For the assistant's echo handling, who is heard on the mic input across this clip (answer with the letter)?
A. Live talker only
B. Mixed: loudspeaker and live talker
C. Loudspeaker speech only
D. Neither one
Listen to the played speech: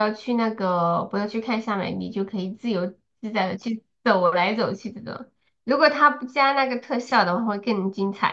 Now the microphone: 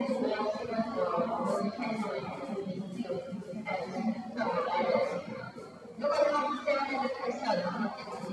C